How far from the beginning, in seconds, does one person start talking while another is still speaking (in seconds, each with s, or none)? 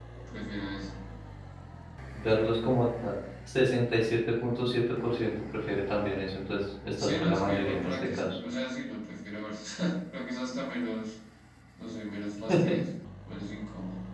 7.0 s